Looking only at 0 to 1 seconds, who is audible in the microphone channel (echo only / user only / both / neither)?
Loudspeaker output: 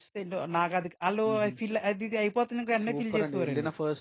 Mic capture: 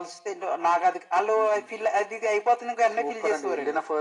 echo only